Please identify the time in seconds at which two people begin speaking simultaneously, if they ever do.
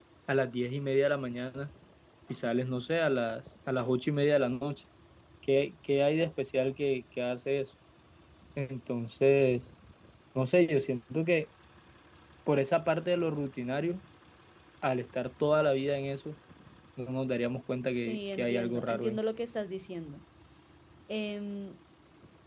17.9 s

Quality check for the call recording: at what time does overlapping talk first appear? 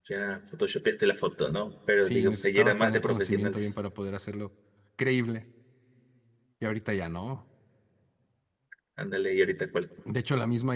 2.0 s

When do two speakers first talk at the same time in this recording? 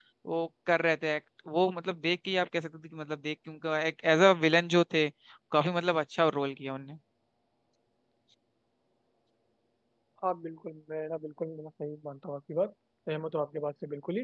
none

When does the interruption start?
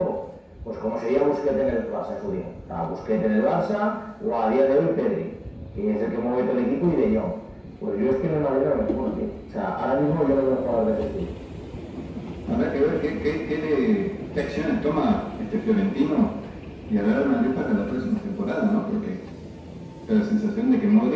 none

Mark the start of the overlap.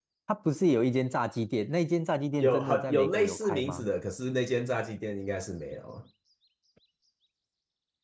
2.4 s

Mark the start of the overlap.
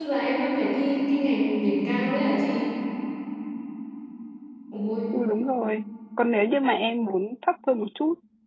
none

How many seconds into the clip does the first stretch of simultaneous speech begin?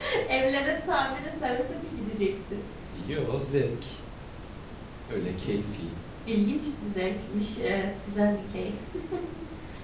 none

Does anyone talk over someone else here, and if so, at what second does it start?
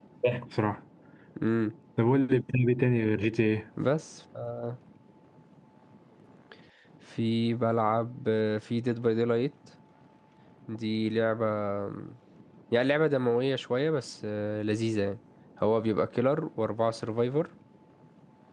none

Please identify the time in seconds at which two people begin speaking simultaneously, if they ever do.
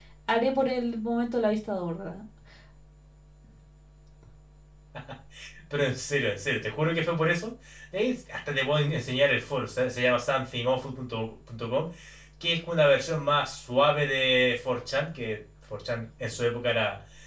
none

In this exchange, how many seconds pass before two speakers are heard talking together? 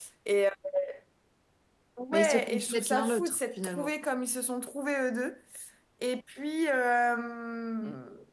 2.1 s

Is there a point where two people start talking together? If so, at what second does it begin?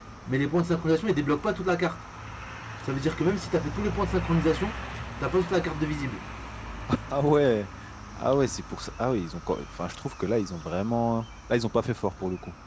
none

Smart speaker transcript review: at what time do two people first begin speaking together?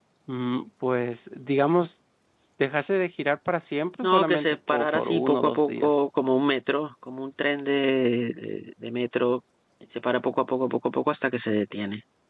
4.0 s

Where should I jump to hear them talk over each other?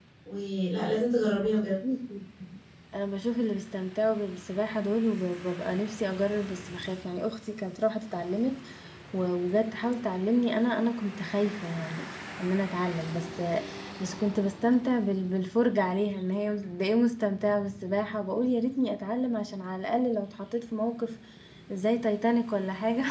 none

